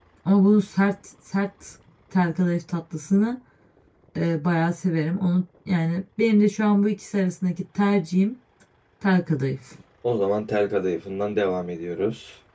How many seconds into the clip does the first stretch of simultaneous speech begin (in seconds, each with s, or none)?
none